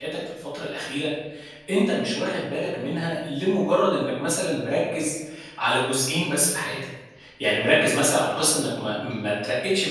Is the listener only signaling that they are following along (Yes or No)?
Yes